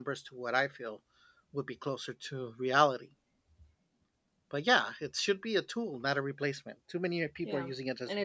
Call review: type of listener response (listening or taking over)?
taking over